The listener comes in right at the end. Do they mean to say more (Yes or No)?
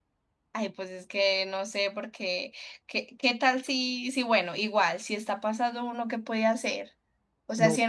No